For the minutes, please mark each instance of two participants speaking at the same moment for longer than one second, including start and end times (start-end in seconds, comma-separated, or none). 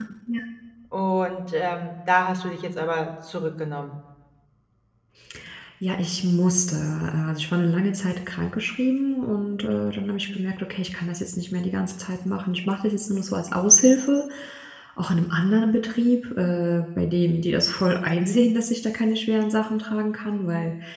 none